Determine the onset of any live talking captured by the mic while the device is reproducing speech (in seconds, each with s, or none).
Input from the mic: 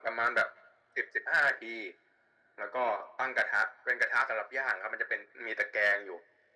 none